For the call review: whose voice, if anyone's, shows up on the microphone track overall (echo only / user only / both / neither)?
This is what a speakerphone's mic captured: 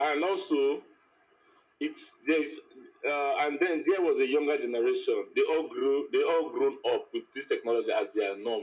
echo only